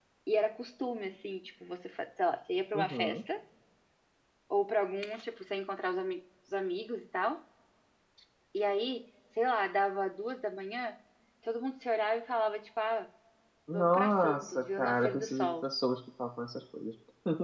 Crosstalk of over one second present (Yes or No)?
Yes